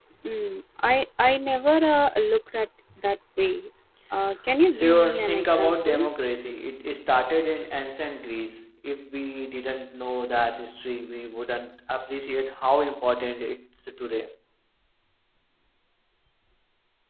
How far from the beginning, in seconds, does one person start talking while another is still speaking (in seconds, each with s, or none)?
4.7 s